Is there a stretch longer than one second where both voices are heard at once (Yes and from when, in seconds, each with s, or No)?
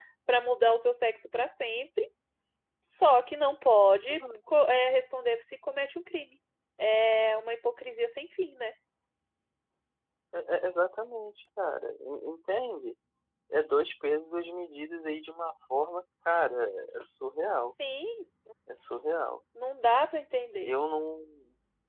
No